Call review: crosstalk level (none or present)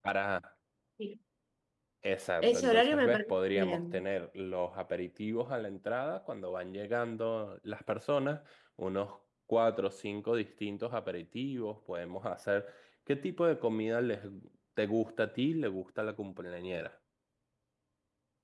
present